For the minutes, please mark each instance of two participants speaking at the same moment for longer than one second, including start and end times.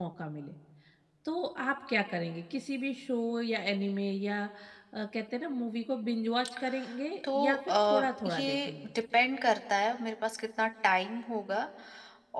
7.3-8.7

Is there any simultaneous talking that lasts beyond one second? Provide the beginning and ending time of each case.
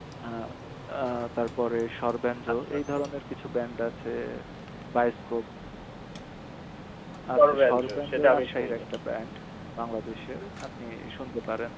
7.4-8.8

